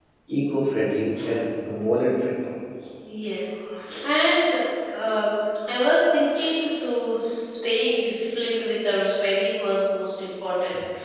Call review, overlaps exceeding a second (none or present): none